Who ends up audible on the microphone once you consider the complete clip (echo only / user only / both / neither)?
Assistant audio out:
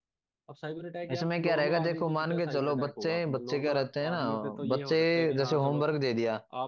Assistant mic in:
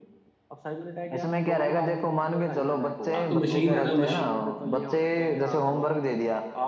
both